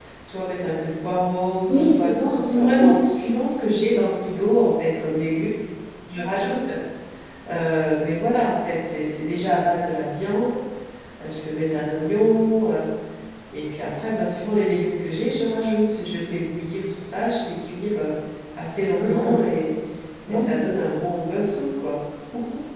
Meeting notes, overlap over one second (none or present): present